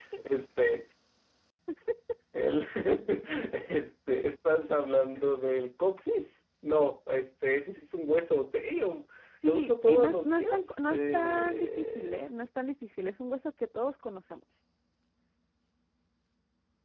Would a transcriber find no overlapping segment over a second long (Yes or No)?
No